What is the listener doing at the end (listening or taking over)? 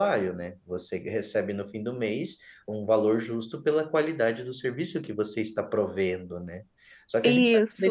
listening